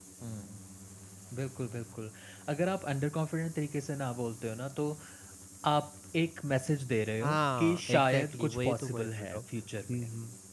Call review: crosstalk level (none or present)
present